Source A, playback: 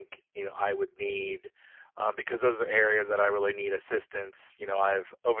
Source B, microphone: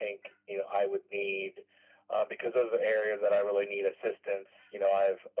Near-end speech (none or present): none